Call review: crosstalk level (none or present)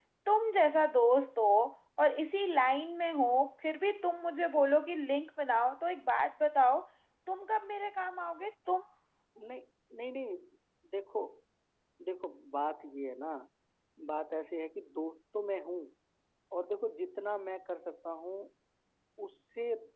none